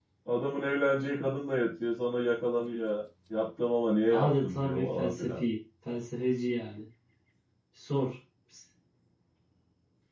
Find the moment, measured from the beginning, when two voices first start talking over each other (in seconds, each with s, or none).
4.1 s